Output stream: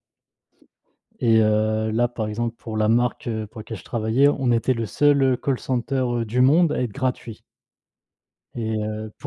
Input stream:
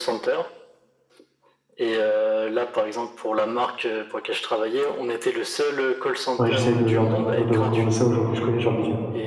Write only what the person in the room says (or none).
ouais, j'essaye de leur de recommander ça aux gens que je connais, je leur dis, heu